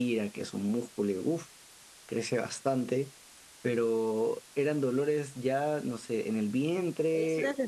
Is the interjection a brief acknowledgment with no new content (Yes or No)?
No